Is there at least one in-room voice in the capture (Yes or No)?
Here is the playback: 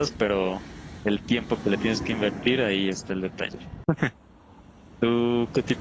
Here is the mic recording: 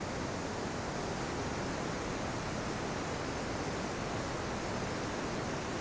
No